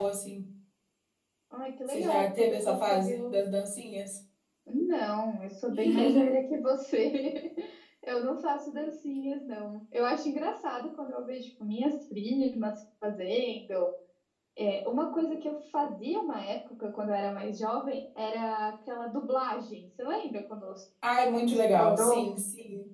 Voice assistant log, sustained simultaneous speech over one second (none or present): present